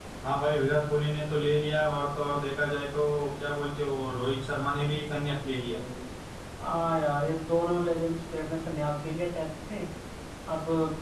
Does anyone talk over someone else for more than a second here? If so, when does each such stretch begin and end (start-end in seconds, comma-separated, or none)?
none